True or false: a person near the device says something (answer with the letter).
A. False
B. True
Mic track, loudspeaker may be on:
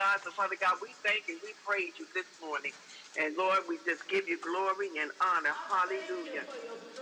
B